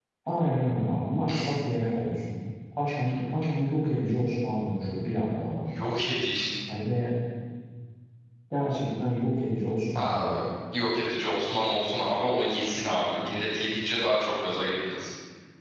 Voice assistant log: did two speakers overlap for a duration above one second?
No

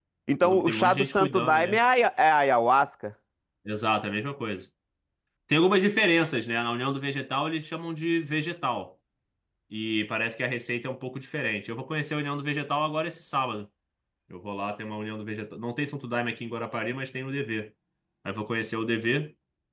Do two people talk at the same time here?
Yes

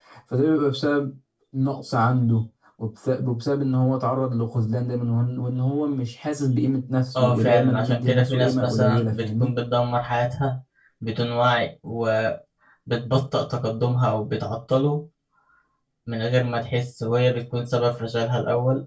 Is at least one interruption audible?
Yes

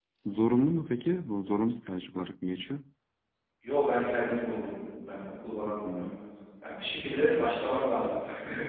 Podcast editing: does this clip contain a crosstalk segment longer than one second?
No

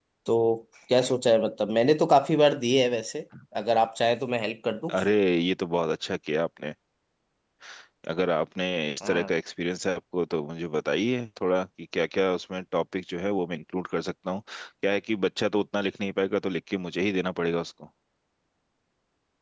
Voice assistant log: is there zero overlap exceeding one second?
Yes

